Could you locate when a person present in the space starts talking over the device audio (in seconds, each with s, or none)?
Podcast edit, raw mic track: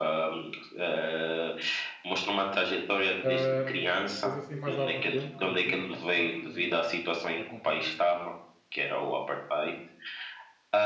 3.2 s